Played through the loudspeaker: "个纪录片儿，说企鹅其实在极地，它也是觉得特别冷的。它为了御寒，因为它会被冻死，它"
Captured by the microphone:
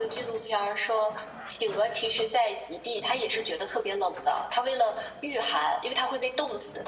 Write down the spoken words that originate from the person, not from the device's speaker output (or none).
none